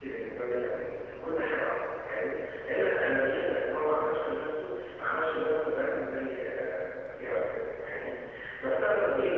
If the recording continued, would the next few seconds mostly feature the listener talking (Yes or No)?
No